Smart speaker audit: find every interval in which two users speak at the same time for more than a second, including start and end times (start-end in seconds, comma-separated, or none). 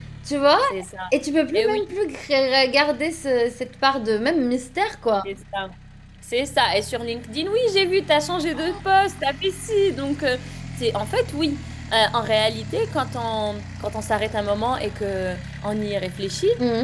none